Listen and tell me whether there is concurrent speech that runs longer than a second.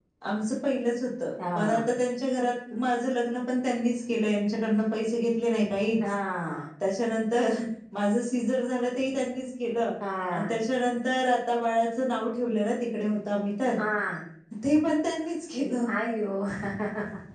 No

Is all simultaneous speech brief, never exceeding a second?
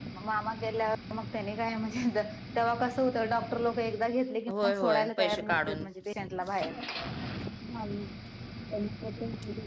No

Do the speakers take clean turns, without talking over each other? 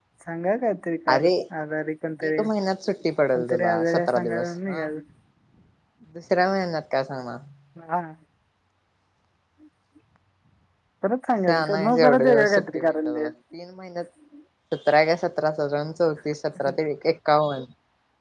No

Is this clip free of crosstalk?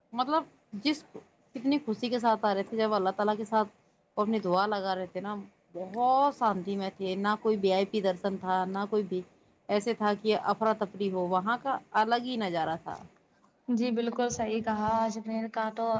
Yes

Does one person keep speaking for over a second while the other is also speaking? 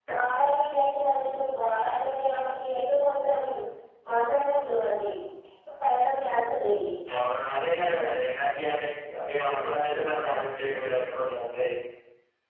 No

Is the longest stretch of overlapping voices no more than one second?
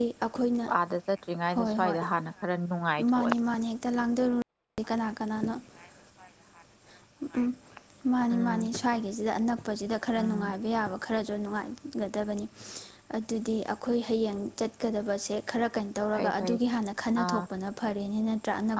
Yes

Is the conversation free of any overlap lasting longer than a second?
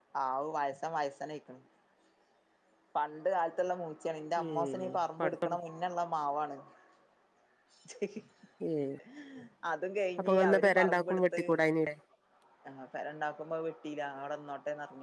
No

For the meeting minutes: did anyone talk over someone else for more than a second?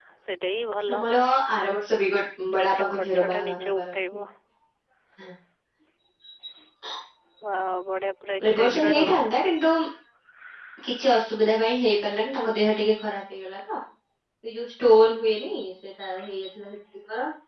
Yes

